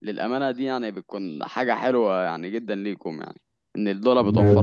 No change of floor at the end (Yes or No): No